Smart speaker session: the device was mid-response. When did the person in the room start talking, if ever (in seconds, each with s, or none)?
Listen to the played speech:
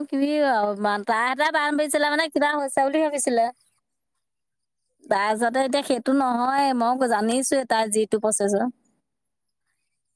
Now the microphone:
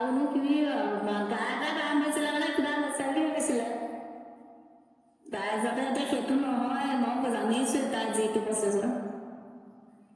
none